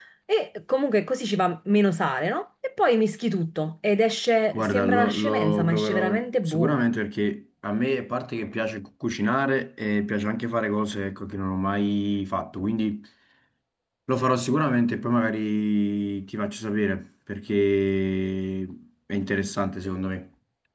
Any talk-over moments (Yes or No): Yes